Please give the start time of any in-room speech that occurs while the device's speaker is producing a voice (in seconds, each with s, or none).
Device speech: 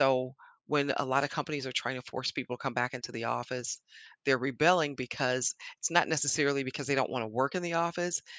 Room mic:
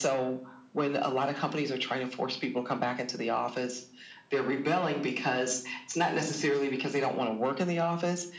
none